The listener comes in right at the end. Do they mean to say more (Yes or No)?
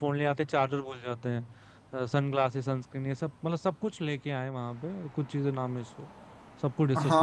Yes